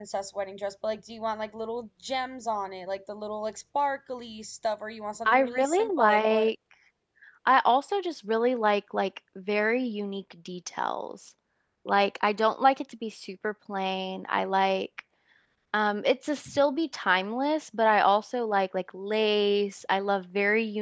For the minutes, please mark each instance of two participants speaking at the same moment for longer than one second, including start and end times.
5.2-6.5

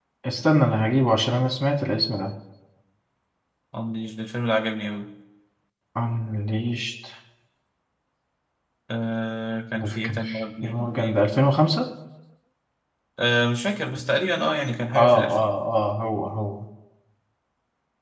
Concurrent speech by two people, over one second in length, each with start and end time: 9.7-11.5

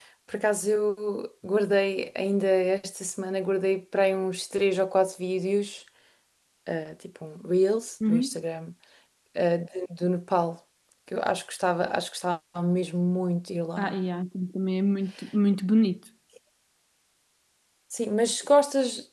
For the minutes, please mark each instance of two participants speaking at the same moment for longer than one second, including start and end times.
none

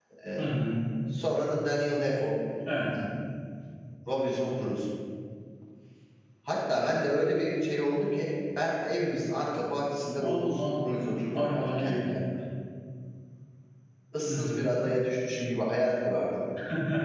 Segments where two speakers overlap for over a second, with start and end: 10.2-12.1

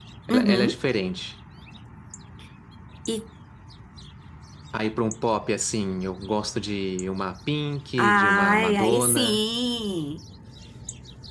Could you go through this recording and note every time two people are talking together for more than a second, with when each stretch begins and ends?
8.0-9.4

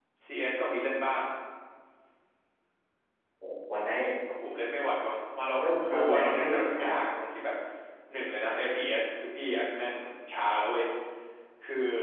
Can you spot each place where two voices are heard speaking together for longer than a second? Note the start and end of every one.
5.6-6.9

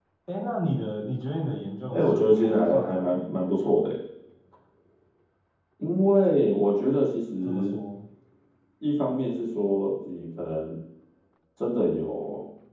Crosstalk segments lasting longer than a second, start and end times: 1.9-3.5

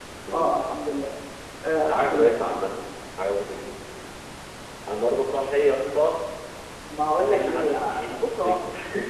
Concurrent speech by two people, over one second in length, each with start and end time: 7.2-8.6

